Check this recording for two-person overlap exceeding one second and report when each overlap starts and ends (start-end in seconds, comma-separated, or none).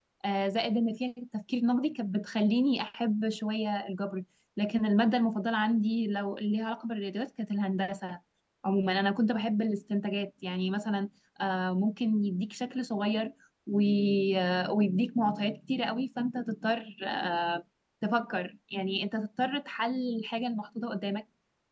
none